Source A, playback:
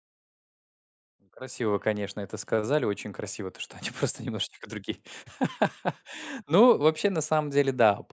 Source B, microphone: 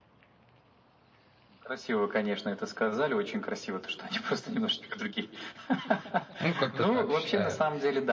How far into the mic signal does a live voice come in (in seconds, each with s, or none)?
6.4 s